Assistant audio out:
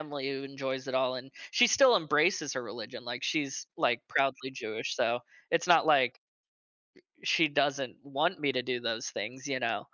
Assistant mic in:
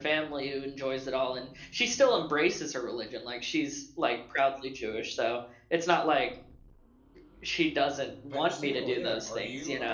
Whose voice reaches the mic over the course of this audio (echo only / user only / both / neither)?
both